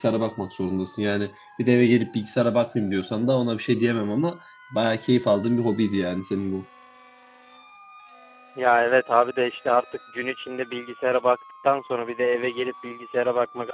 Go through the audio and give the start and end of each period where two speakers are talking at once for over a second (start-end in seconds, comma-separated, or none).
none